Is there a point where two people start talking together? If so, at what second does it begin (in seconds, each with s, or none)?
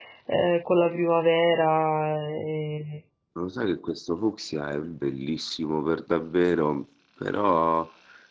none